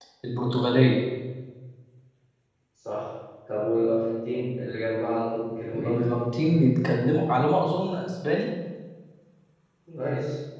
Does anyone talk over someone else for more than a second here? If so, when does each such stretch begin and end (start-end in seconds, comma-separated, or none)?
none